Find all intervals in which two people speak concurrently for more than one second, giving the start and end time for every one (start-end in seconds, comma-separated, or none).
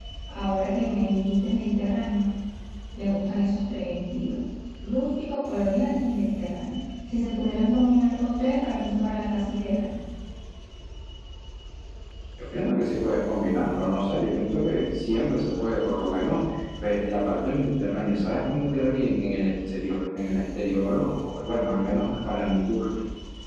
none